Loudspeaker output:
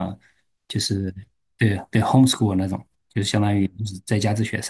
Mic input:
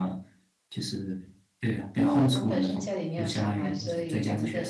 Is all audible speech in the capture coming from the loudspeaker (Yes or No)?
No